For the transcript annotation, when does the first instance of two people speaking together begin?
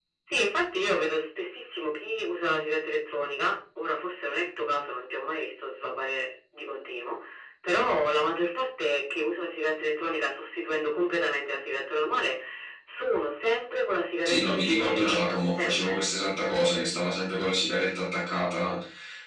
14.2 s

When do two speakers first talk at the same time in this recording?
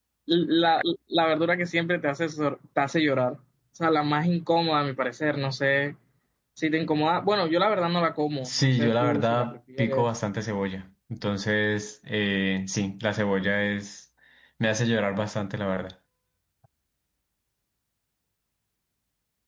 8.4 s

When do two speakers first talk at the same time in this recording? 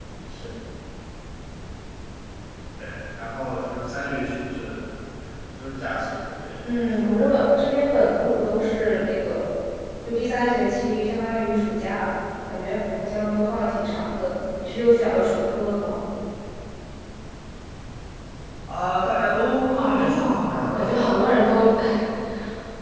6.6 s

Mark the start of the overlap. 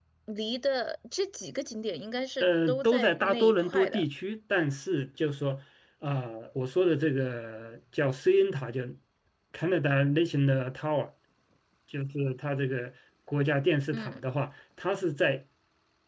2.4 s

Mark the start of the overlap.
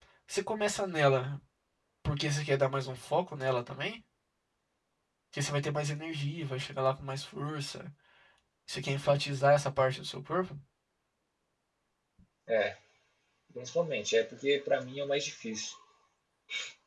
none

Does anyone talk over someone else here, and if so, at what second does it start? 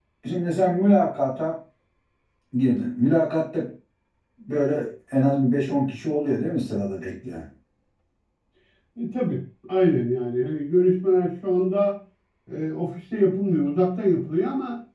none

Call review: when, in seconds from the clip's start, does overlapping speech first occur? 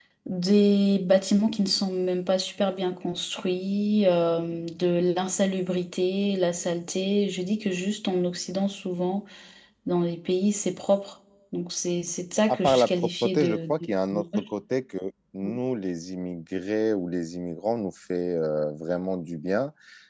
12.5 s

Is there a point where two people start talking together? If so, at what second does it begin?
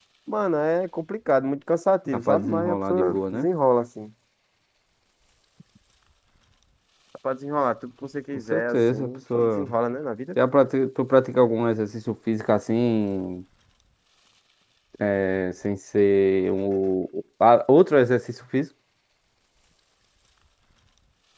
2.1 s

